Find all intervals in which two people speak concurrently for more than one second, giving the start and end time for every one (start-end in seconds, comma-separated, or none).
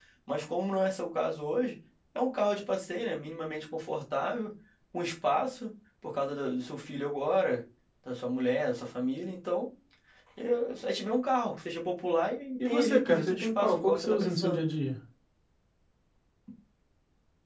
12.6-14.6